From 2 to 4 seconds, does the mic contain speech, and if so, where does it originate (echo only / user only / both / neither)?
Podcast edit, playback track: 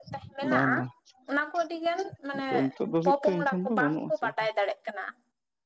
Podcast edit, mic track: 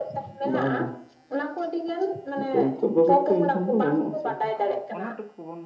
echo only